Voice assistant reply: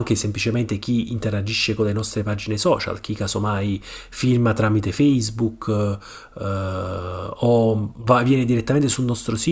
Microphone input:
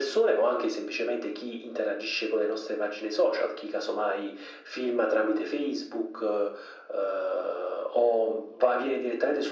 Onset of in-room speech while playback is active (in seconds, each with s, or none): none